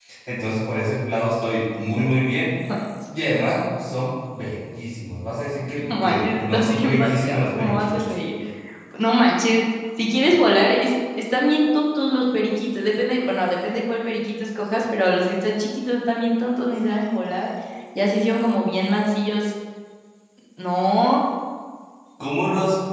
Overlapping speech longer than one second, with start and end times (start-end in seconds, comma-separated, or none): 5.9-8.1